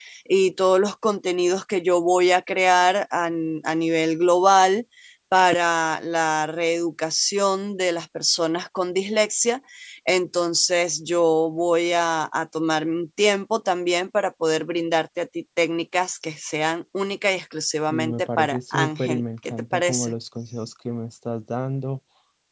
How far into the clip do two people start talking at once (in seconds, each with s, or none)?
17.9 s